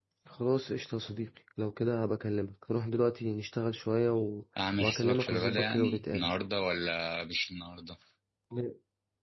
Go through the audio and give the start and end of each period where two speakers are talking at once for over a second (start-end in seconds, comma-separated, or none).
4.8-6.3